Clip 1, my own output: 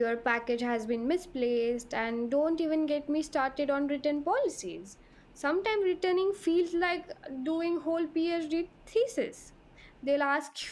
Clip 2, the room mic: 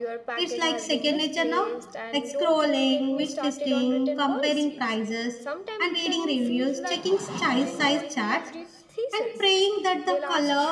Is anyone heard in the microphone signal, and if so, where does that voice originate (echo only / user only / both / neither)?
both